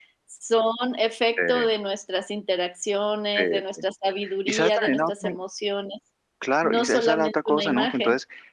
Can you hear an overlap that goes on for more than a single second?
Yes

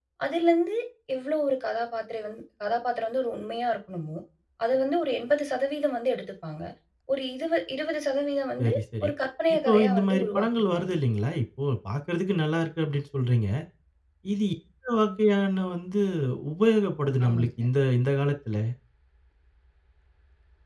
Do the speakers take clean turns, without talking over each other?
No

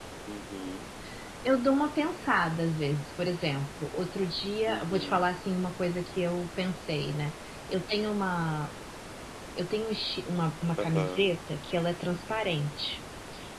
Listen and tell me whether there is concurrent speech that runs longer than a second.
No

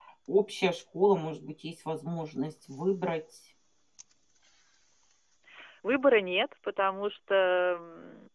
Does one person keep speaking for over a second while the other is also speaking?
No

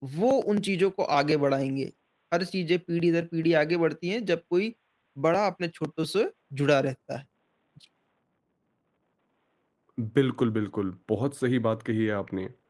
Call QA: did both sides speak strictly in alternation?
Yes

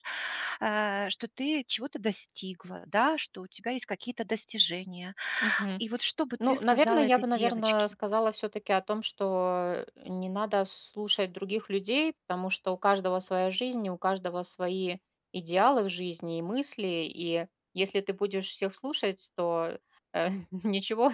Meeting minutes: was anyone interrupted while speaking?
Yes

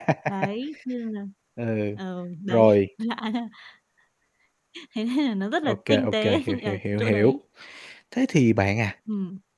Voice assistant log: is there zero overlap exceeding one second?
No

